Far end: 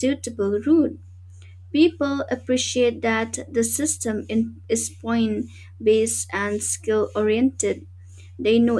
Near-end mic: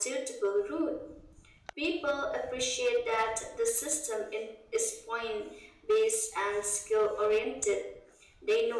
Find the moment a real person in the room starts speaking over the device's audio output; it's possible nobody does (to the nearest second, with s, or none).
none